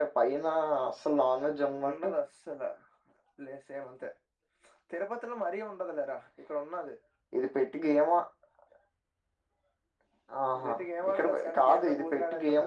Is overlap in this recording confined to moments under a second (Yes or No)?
No